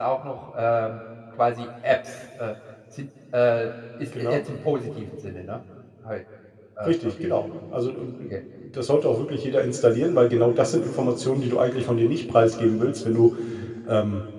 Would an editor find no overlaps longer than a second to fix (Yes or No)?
Yes